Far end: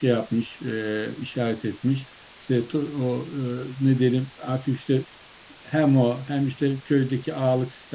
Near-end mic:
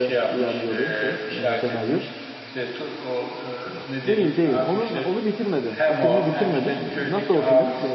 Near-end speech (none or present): present